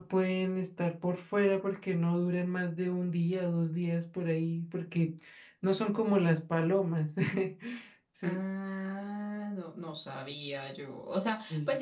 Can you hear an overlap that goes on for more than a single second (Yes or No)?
No